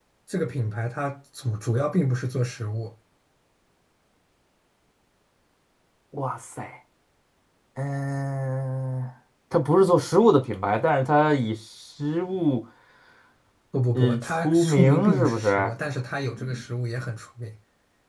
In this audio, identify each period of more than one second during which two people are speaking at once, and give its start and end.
14.0-15.7

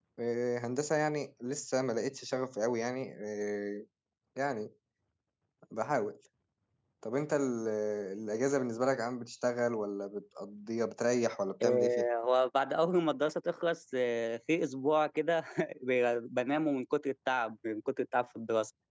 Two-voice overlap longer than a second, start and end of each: none

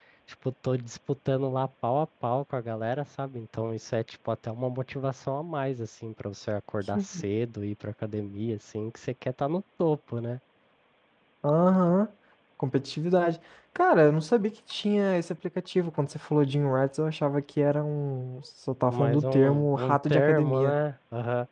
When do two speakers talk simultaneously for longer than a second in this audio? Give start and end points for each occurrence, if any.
18.9-20.7

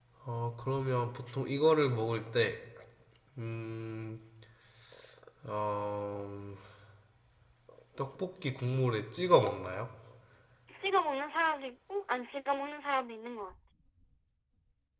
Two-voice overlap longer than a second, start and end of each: none

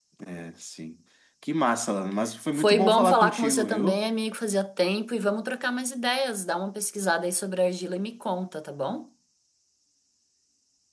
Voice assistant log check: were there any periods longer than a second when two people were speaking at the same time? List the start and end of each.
2.5-4.0

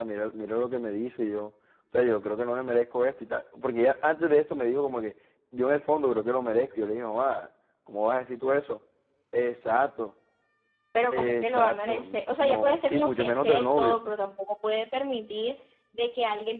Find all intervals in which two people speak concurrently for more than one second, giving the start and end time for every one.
11.1-14.0

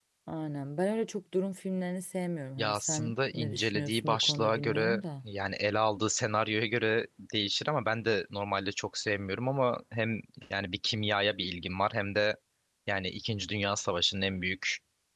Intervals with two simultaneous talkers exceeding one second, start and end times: 2.6-5.0

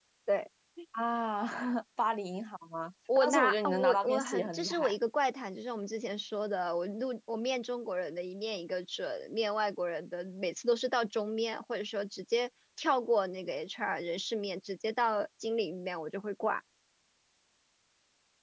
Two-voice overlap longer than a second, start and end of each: 3.2-5.0

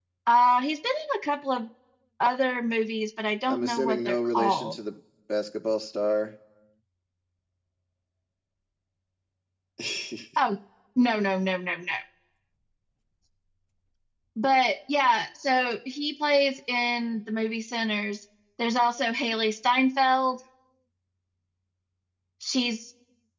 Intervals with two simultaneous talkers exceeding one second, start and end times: 3.5-4.8

